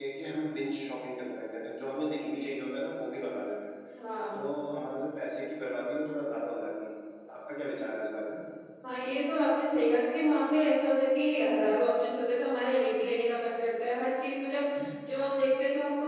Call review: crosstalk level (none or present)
none